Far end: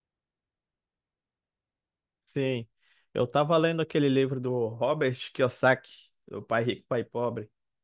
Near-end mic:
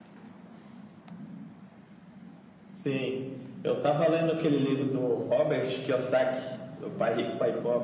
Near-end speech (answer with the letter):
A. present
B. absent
B